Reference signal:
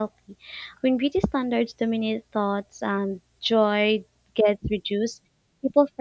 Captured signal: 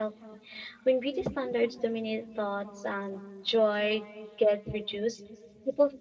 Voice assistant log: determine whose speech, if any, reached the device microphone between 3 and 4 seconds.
echo only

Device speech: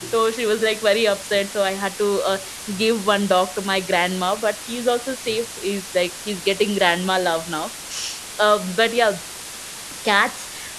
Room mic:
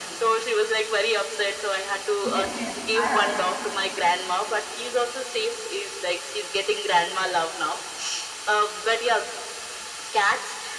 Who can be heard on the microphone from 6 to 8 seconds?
echo only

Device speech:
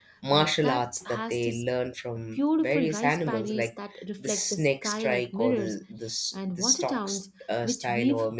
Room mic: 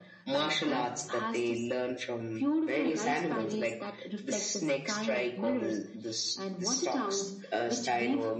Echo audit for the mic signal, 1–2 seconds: echo only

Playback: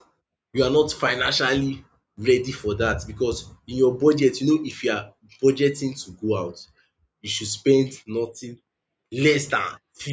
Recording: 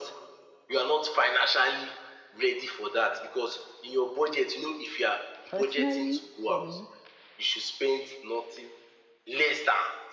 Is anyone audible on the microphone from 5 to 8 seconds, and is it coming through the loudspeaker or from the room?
both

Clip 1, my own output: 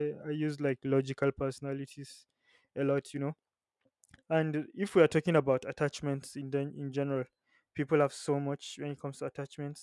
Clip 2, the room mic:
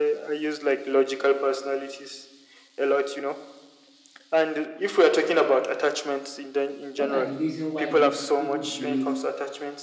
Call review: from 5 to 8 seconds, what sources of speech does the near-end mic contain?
both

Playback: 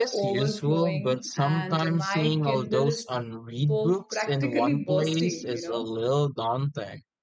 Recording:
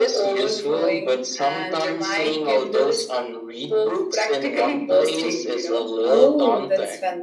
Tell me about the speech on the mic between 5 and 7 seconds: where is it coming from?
both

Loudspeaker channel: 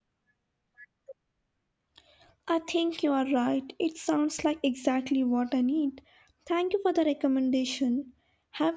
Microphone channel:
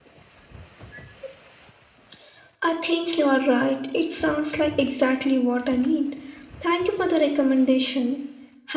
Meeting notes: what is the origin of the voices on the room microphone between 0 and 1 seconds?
neither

